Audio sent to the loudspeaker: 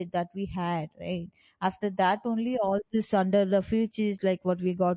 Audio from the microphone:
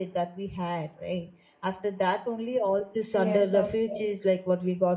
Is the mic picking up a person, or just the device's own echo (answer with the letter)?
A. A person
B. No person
A